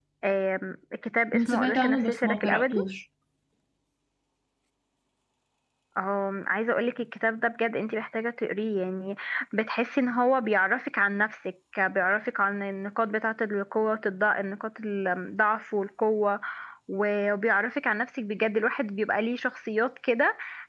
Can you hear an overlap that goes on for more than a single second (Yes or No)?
Yes